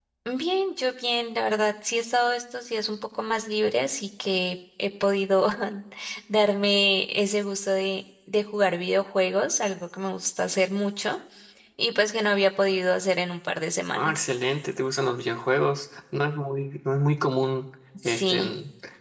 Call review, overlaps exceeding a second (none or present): none